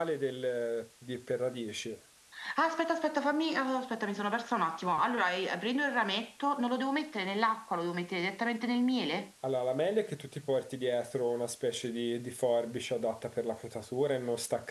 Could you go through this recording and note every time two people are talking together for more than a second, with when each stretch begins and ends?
none

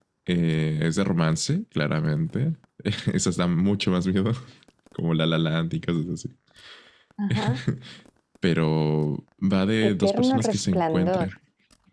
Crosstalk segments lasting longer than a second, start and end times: 9.9-11.3

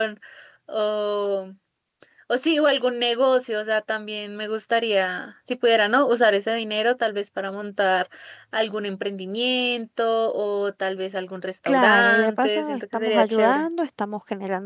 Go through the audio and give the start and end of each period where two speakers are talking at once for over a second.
11.7-13.7

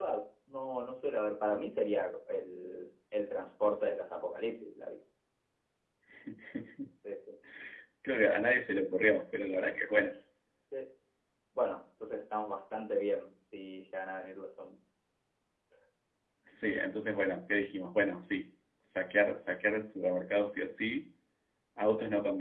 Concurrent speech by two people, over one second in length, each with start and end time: none

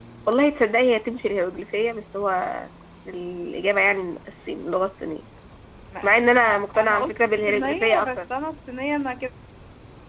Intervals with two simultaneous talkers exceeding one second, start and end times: 6.4-8.2

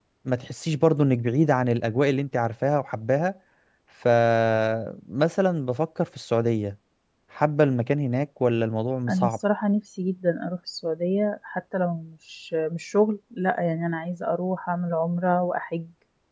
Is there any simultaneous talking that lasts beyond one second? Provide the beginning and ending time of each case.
none

